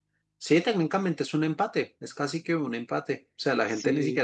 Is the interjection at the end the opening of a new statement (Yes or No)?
No